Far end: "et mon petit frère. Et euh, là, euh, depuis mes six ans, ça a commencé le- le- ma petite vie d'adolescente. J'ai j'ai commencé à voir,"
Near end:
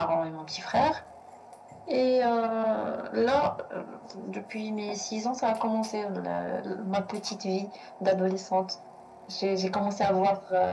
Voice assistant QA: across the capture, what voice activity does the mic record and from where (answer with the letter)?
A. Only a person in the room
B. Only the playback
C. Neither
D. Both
B